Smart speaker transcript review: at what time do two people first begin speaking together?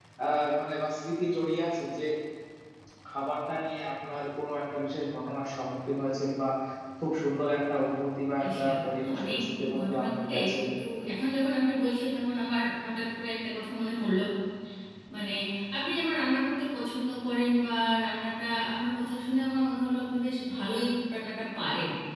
8.4 s

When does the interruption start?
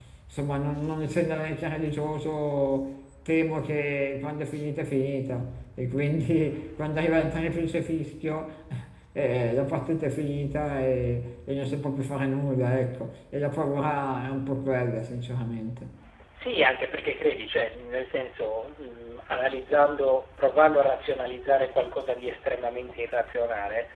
none

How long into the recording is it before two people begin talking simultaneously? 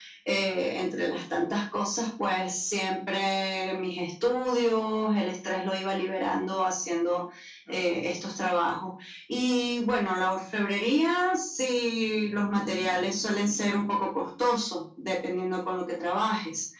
none

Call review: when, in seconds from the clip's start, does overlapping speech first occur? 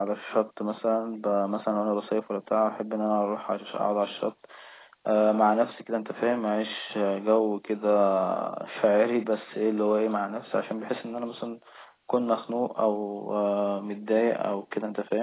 none

